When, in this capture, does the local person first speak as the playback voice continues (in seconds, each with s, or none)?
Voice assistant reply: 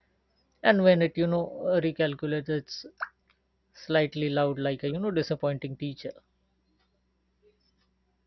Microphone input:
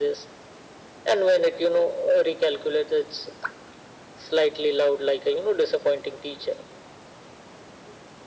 none